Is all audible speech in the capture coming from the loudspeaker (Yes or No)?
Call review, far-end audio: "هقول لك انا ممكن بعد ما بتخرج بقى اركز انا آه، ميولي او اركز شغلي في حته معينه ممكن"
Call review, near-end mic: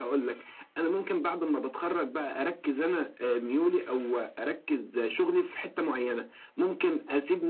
Yes